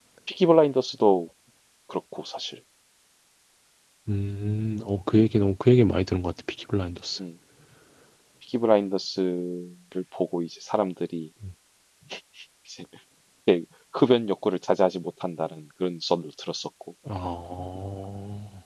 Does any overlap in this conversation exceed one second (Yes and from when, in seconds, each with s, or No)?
No